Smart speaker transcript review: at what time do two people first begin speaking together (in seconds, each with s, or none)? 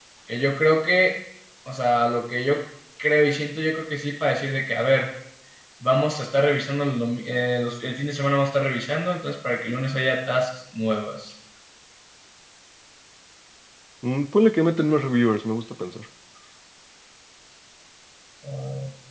none